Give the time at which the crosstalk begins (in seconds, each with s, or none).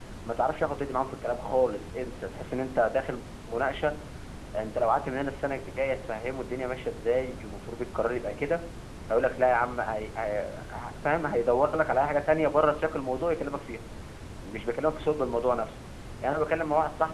none